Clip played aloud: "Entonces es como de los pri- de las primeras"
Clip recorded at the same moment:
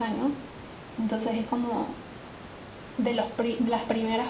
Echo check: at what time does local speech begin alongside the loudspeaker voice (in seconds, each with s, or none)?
none